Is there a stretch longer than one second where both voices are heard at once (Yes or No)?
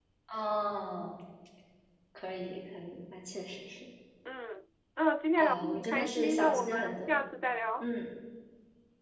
Yes